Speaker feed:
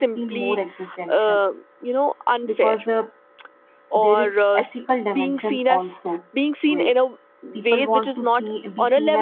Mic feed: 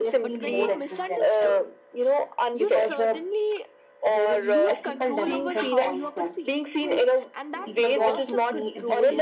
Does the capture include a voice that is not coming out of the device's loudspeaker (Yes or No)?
Yes